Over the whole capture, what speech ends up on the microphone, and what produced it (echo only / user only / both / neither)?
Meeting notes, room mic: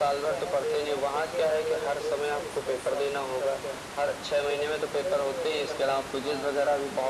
echo only